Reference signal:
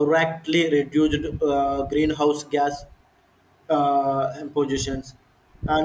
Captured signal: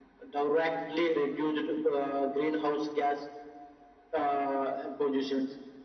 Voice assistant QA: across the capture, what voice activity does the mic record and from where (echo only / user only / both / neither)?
echo only